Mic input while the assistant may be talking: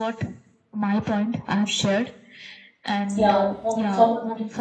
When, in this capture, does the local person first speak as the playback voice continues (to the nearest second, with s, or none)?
3 s